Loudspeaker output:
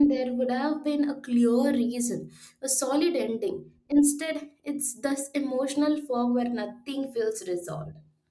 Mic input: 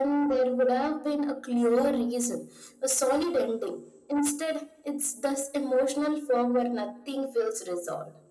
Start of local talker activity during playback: none

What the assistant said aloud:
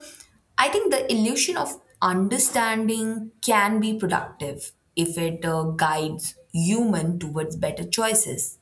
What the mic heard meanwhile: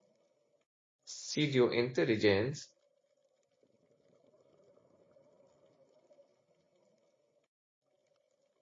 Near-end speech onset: 1.0 s

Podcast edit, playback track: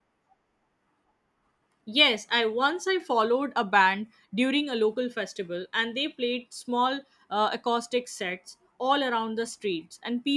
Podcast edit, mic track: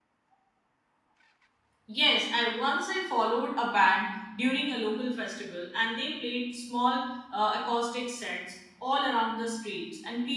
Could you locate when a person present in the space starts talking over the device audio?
none

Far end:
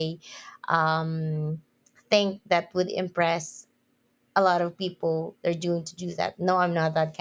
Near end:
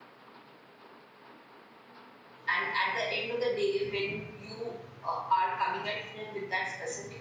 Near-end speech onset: 2.5 s

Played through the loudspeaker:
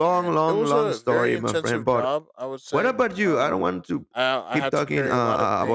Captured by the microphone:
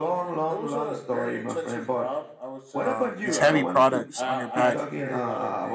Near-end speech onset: 2.8 s

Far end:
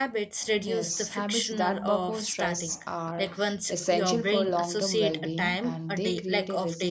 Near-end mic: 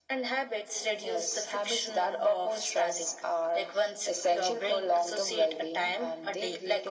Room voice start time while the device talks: none

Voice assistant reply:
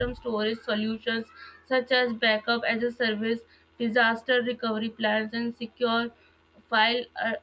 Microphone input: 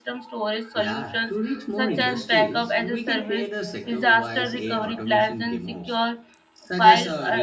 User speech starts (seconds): 0.7 s

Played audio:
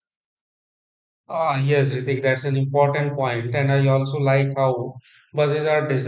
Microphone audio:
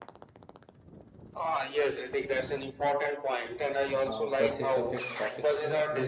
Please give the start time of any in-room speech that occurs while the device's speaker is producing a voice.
4.1 s

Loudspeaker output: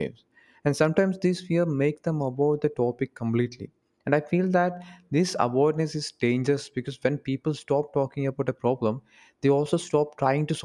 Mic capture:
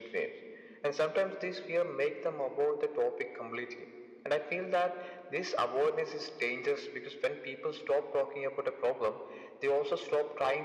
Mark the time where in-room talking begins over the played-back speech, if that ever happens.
none

